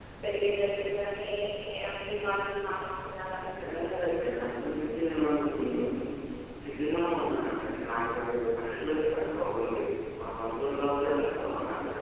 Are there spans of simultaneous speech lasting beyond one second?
No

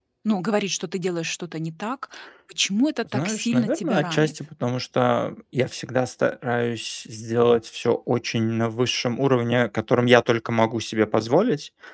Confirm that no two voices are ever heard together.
No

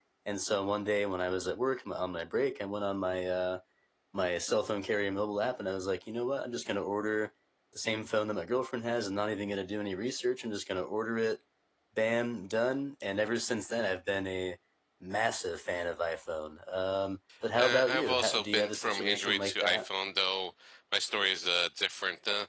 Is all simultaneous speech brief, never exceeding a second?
No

